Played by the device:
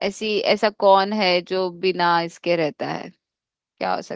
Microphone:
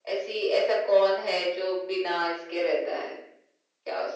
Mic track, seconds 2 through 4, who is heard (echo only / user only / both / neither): echo only